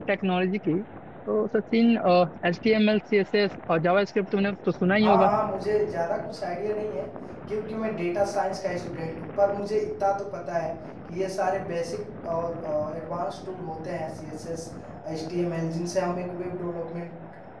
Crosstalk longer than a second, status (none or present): none